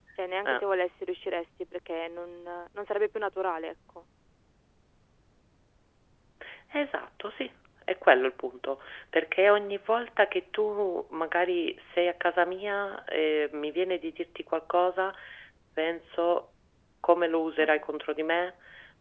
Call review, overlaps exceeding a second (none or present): none